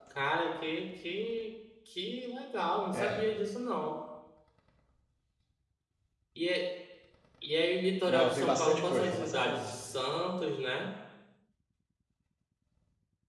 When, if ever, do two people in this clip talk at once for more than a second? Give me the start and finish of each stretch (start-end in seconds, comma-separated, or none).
8.1-9.7